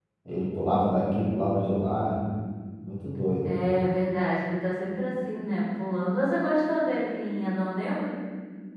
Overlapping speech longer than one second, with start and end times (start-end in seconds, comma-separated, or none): none